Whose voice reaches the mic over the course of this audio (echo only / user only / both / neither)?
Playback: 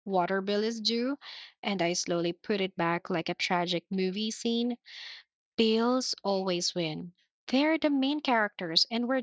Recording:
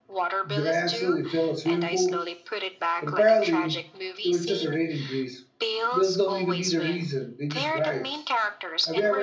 both